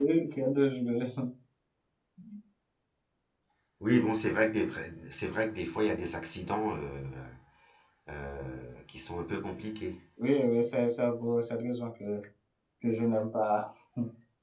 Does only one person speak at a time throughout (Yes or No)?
Yes